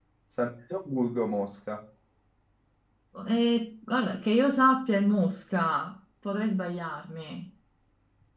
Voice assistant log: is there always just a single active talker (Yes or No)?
Yes